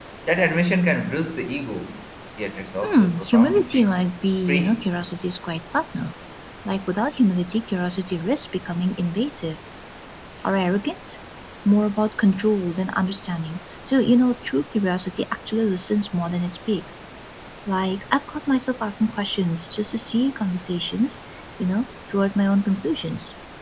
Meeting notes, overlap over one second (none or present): present